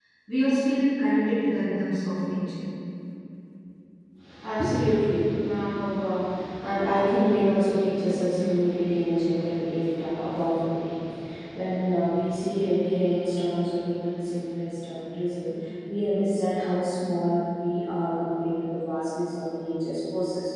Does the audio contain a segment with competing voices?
No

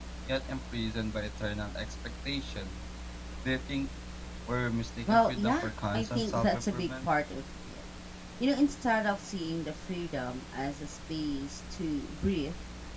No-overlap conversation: No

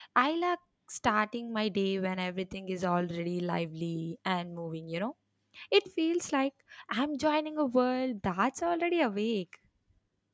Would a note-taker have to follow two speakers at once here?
No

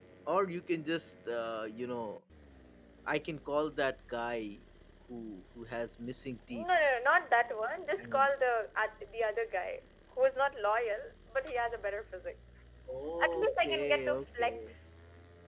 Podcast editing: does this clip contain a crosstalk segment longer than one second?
Yes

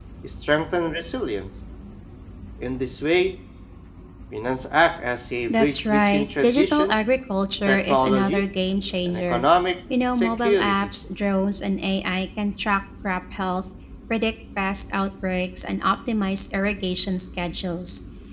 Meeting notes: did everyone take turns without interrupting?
No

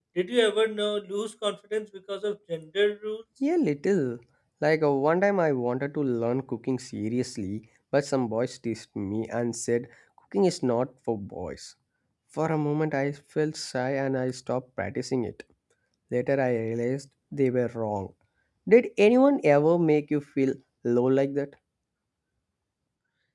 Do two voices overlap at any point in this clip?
No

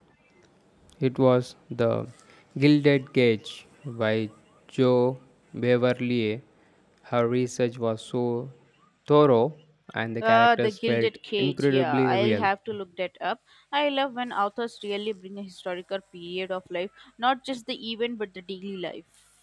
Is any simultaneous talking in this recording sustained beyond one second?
Yes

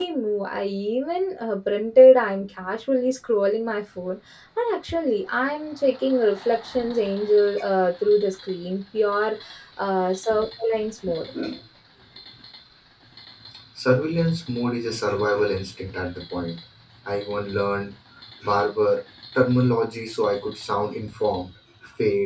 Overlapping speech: No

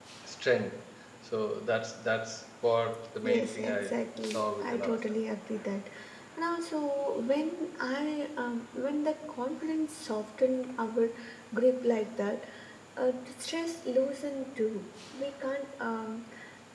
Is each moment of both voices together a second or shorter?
No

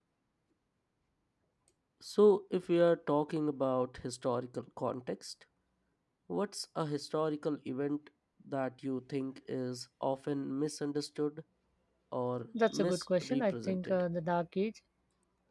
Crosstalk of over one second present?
Yes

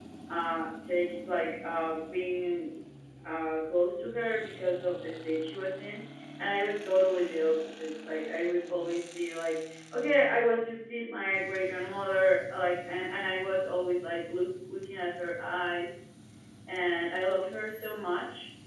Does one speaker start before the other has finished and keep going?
No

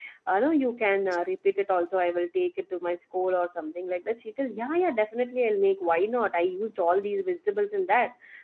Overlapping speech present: No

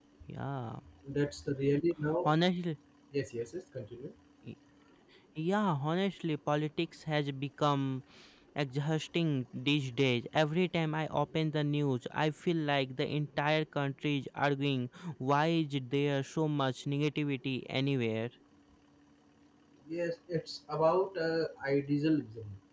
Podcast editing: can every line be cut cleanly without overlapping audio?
Yes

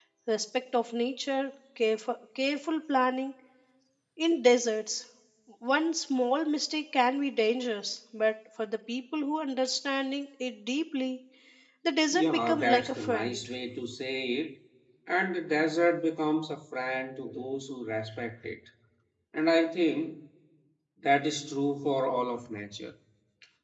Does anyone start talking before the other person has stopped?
Yes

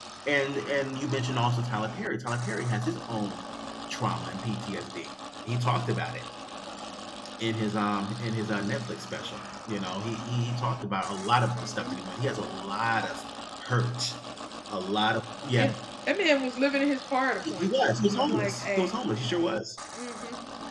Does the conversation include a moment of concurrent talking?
Yes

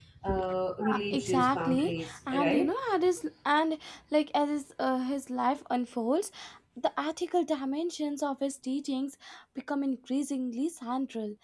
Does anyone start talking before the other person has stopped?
Yes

